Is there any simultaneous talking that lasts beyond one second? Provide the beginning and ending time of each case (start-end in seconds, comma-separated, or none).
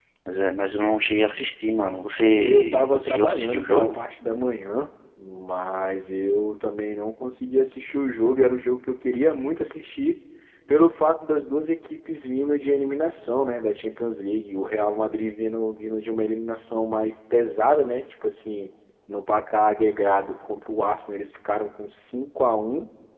2.4-4.0